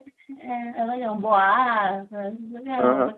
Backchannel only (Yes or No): No